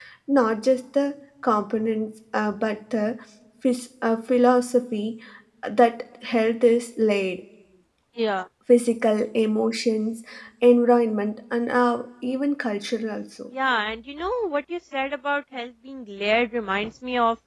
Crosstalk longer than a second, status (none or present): none